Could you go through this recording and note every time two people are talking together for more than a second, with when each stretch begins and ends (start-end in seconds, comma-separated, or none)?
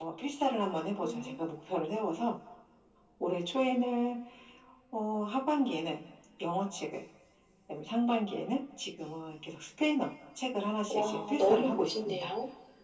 10.9-12.3